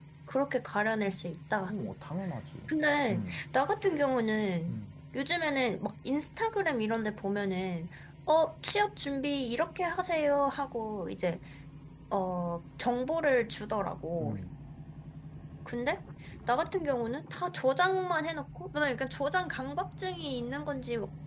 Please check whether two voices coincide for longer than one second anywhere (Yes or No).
No